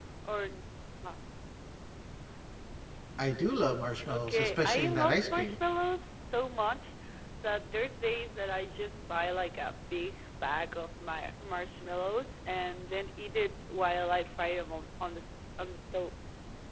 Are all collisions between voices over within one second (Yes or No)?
No